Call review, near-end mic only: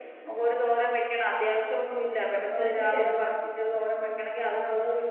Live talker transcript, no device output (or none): ഉച്ചക്കത്തെ ചെരങ്ങ